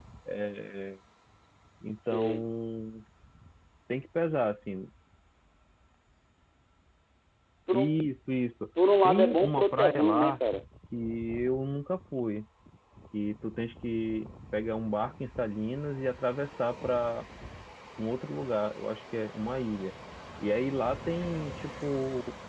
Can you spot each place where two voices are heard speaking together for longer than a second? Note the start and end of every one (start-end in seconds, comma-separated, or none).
9.0-10.4